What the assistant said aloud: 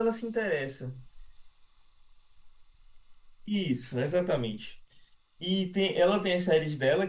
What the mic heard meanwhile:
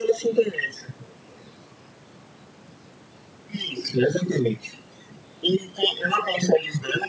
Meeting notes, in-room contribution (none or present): none